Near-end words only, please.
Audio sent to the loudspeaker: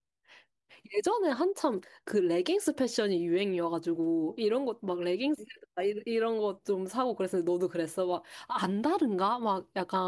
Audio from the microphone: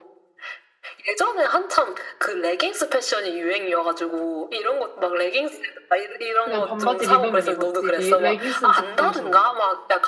그냥 반바지 입으면 입었지. 리- 레깅스는 좀 부담스러운 것 같아.

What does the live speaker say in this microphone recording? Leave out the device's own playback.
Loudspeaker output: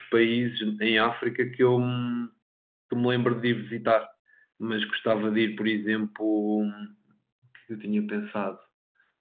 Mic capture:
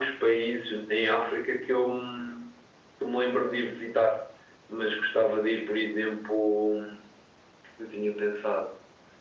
none

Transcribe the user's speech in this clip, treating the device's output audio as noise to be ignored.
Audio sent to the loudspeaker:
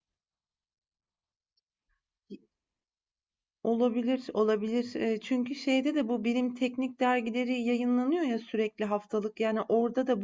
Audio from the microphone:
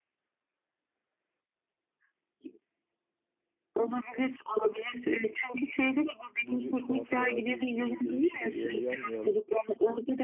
bir tuhaflığa bir e, değişikliğe uyanmayalım.

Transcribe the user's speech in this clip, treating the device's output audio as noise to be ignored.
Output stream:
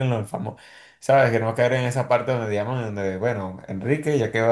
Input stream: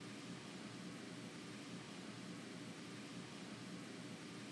none

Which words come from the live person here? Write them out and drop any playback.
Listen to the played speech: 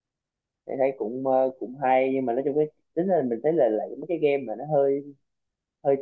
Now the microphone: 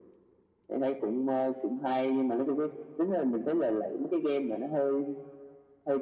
none

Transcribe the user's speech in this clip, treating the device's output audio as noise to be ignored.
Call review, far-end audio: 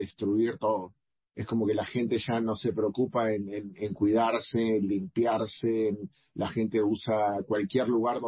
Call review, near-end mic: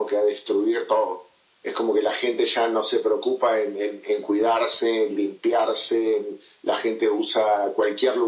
none

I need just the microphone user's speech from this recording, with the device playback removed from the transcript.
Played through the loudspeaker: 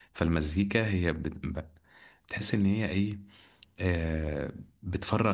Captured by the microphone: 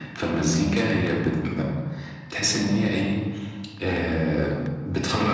none

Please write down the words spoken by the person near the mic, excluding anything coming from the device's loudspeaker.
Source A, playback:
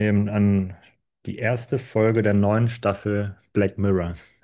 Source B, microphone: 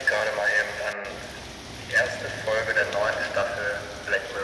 none

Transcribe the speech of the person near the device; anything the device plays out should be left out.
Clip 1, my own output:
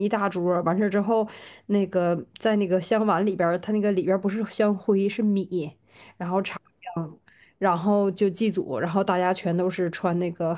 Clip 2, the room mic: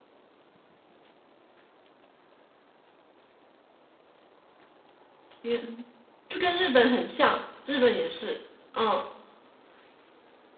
天，就跟日本很像，日本也是。嗯，

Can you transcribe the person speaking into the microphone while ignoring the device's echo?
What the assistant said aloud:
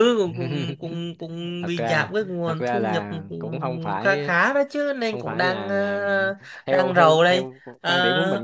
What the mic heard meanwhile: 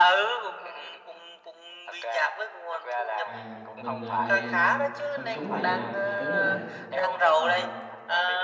à mình ờ, mình phần cứng là vậy nè phần cứng là Ờ,

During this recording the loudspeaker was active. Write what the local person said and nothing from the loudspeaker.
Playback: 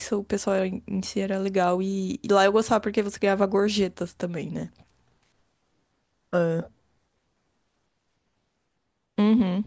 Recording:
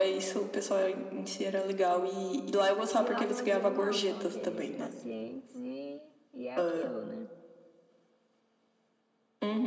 E lá no asilo não, são aqueles pacientes e, e é aquilo, né?

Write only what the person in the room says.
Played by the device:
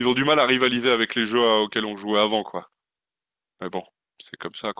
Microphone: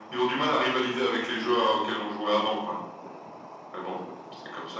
none

